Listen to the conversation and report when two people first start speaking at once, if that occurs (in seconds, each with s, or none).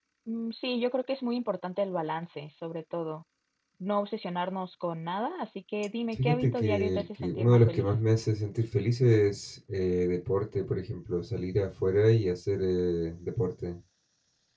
6.2 s